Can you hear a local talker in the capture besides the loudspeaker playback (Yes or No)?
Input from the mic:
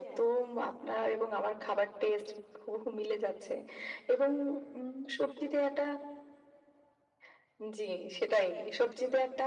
No